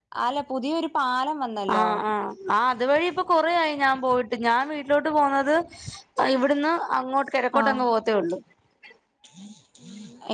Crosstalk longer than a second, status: none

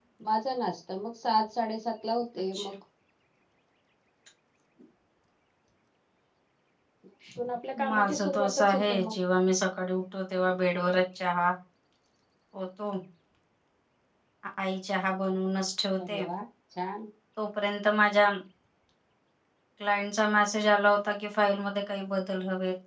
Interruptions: present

